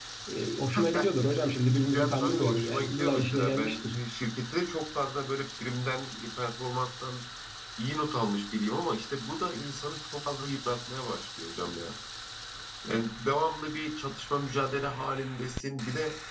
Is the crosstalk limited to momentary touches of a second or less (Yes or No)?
No